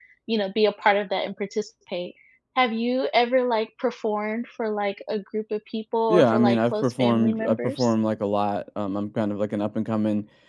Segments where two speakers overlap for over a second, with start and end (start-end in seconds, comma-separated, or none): 6.1-7.9